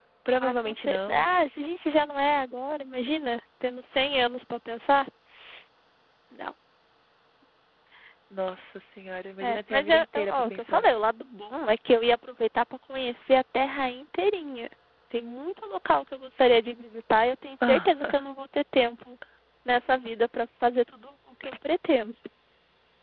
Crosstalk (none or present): present